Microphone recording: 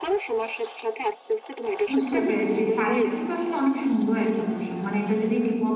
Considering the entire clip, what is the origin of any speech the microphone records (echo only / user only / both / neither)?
both